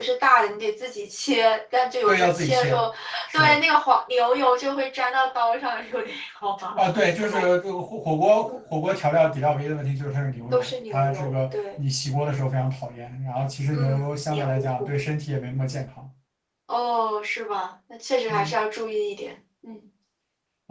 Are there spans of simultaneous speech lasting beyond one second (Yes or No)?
Yes